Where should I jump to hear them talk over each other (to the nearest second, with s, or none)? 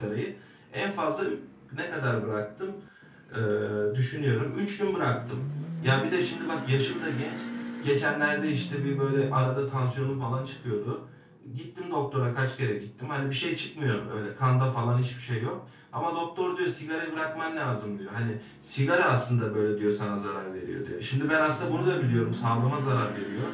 none